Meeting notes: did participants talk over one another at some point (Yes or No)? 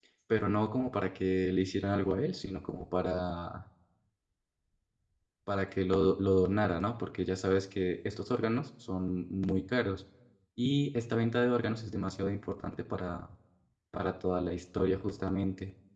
No